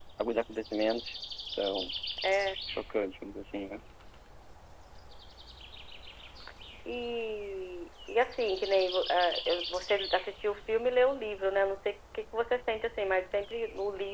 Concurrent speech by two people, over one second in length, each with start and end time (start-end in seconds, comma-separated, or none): none